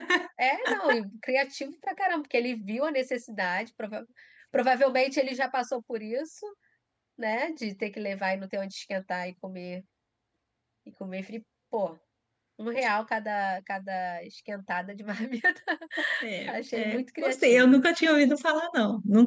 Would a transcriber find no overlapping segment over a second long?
No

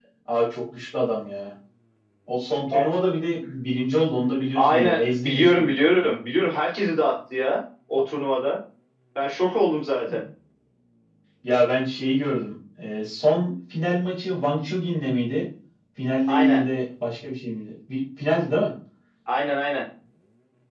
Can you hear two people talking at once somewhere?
Yes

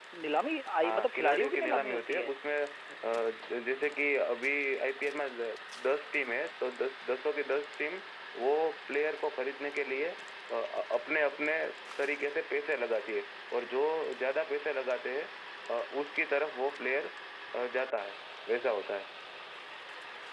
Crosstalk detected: Yes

